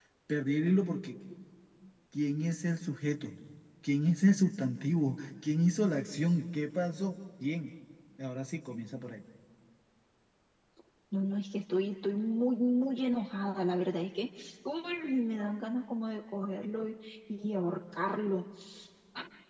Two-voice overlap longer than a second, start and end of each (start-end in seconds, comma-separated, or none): none